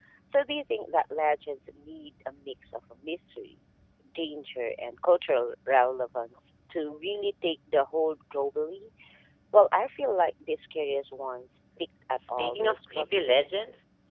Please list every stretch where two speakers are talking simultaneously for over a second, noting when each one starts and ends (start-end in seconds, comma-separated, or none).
12.4-13.6